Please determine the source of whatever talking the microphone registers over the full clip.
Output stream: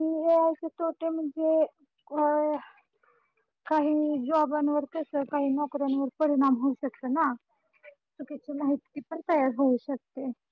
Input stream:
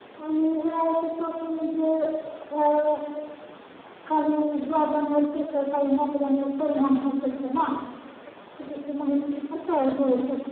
echo only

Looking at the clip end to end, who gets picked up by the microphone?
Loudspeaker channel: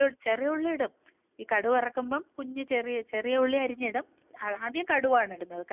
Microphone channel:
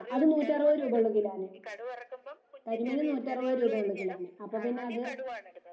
both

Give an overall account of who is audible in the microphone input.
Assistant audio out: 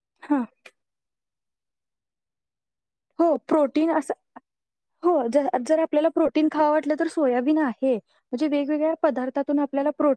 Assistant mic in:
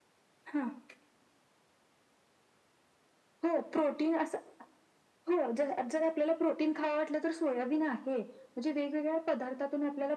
echo only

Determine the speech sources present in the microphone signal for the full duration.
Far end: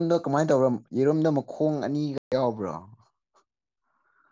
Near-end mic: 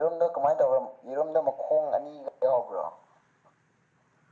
echo only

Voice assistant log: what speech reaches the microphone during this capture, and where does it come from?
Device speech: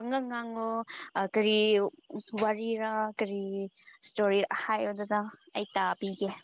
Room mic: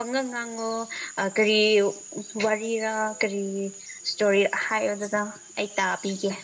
echo only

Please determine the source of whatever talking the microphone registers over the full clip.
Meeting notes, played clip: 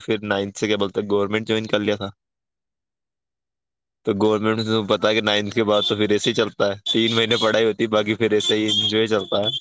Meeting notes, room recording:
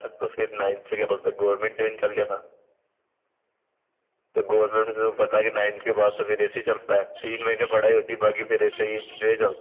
echo only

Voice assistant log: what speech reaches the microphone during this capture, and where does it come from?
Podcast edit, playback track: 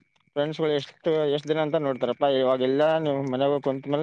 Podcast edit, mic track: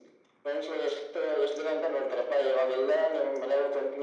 echo only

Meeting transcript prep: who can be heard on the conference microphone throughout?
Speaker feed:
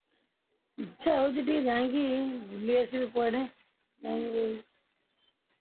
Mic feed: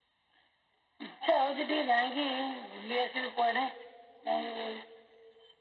echo only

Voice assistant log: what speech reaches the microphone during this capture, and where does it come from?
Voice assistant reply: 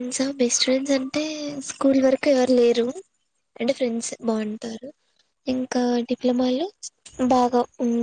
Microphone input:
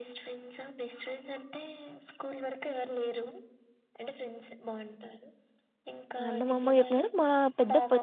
both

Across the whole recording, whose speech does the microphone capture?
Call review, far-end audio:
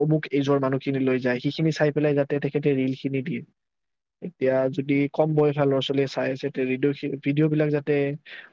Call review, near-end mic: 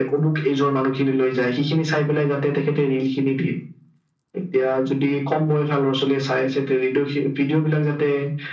echo only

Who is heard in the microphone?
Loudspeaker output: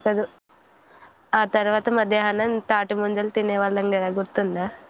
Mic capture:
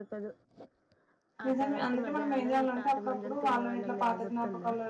both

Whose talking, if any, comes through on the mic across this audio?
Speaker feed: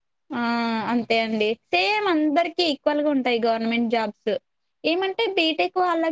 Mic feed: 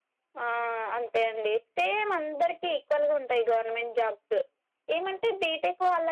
echo only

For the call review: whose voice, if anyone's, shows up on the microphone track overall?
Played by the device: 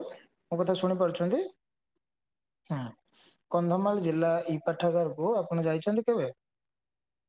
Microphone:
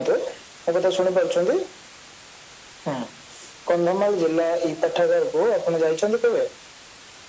echo only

